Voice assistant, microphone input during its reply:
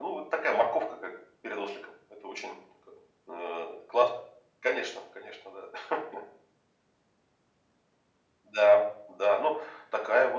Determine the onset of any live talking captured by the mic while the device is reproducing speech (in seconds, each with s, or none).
none